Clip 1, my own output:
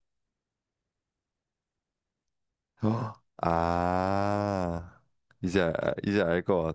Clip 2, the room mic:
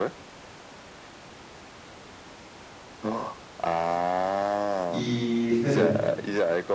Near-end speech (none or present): present